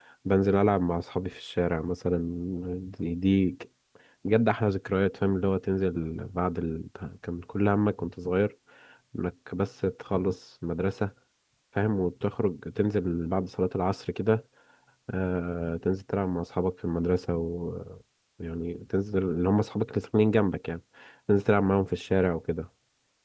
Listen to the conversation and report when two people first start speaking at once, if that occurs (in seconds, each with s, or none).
none